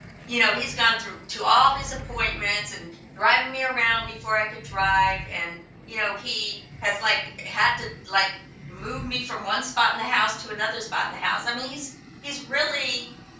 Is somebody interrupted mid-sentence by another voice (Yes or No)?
No